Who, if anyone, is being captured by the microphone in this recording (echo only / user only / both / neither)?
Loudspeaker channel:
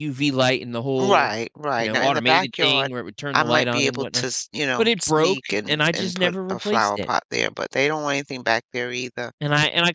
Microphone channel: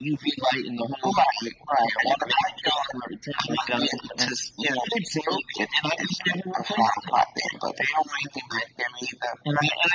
echo only